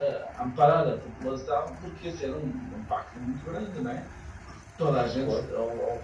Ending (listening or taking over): listening